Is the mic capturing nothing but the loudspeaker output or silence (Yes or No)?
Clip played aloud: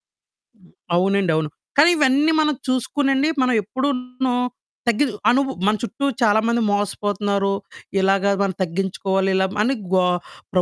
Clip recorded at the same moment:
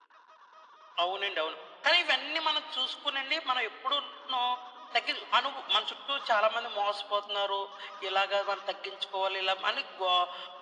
Yes